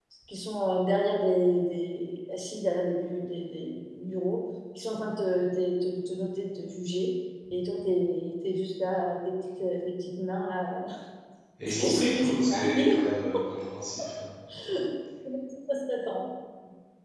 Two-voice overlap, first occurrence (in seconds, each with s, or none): 11.6 s